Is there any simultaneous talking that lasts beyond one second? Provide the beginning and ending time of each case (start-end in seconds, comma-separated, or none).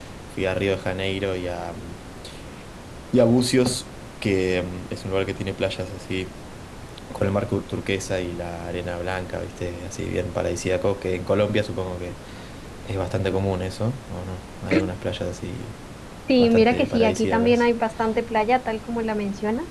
16.4-17.6